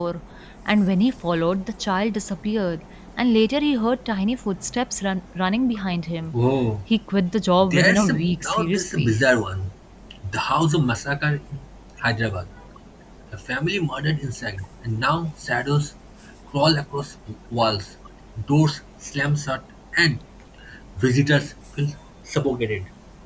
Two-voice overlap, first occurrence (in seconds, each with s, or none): 7.7 s